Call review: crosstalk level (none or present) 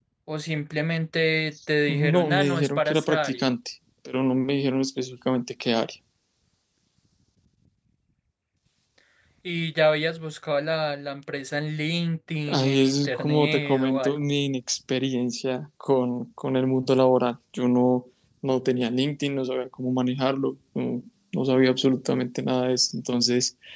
present